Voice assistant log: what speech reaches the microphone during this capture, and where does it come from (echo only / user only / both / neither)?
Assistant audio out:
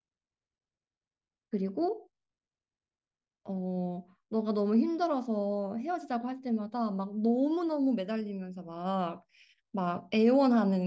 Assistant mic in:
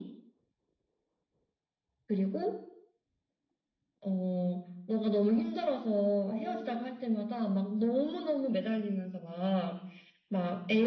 both